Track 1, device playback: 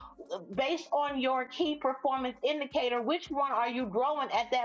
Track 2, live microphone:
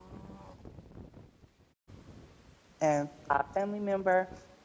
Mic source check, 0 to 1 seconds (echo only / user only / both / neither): neither